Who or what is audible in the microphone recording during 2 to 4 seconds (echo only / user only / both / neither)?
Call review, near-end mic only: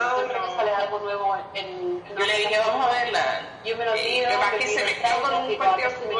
echo only